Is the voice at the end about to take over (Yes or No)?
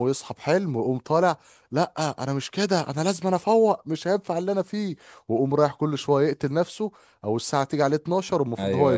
Yes